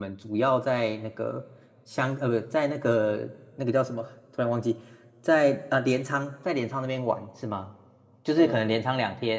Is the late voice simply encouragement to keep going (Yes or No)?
Yes